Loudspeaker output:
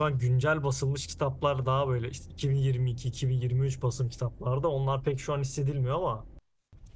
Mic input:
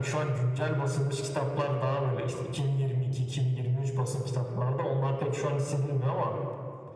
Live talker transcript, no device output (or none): none